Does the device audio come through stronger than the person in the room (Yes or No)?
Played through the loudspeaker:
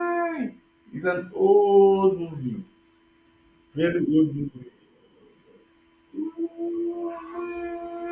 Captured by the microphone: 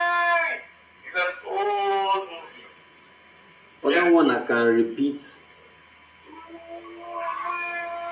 No